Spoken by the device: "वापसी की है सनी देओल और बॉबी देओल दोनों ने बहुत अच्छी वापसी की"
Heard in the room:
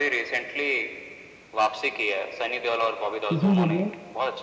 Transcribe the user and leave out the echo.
किसमें बोल रहे हो

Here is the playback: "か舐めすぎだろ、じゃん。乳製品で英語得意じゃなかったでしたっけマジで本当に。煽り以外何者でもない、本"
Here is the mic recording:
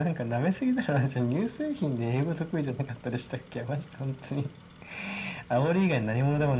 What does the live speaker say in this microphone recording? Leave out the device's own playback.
none

